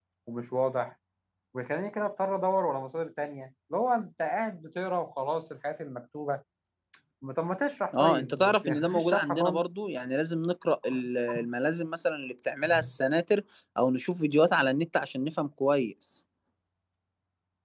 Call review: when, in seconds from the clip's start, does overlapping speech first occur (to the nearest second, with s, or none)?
8 s